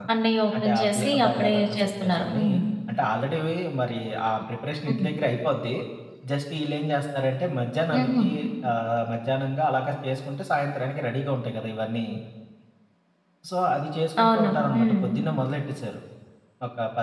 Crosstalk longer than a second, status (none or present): present